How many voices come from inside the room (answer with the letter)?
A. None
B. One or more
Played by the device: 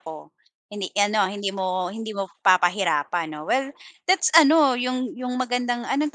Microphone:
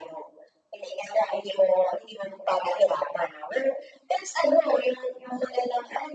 A